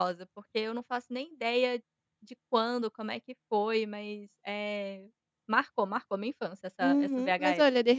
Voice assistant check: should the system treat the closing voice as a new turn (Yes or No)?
Yes